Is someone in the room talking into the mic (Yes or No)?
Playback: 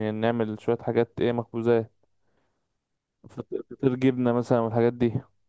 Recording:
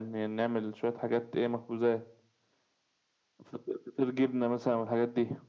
No